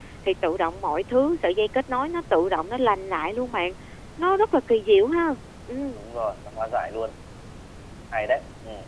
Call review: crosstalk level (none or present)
none